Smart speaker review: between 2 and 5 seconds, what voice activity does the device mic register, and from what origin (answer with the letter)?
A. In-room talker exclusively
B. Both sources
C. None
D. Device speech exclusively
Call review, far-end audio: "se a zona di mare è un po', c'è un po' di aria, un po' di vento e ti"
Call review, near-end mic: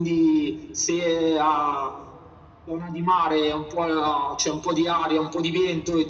D